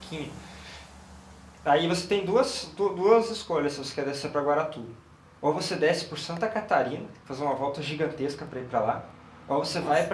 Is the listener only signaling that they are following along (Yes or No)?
Yes